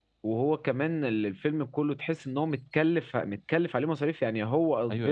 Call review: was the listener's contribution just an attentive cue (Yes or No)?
No